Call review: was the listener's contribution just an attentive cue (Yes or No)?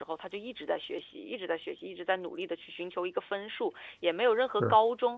Yes